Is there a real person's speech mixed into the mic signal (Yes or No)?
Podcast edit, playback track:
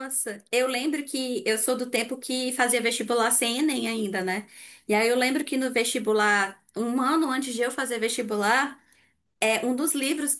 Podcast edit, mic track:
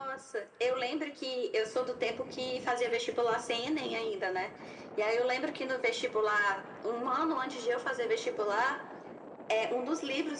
No